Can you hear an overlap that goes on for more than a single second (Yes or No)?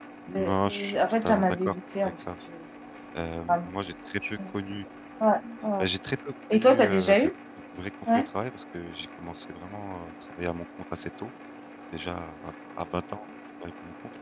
Yes